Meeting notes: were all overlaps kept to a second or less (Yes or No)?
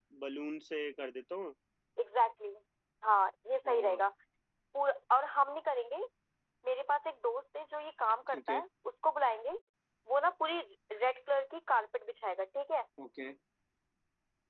Yes